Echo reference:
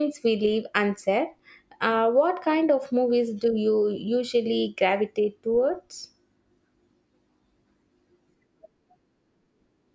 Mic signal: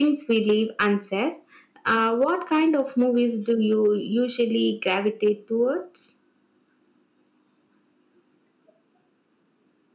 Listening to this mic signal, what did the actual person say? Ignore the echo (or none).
none